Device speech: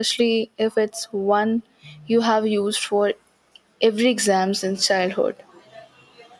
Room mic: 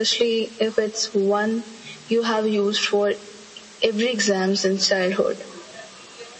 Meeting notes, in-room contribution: none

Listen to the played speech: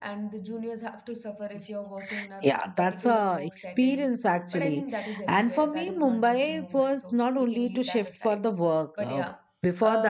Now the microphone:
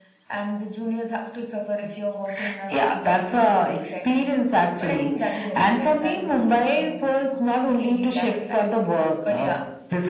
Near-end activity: none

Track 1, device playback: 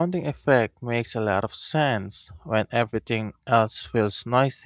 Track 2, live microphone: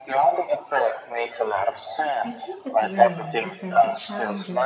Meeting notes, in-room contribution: present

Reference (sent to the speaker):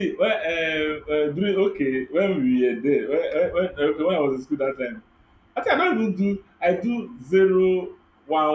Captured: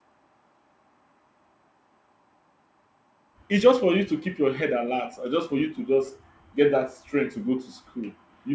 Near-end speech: present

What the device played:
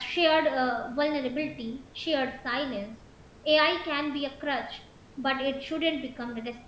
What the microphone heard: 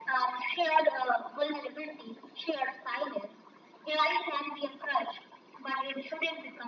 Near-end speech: none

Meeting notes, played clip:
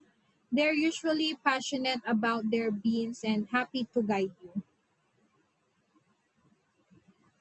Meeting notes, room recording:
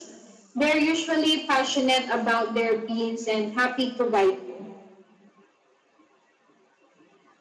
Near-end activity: none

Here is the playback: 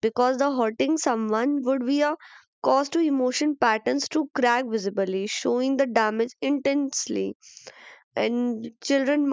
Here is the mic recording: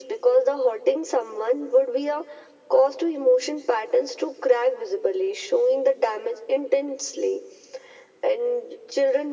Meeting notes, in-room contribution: none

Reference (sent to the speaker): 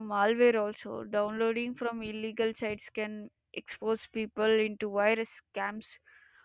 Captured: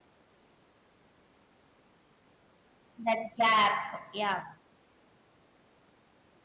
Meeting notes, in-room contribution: present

